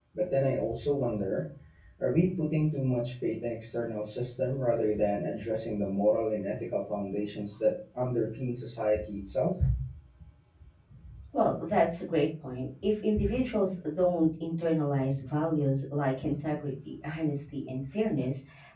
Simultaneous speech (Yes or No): No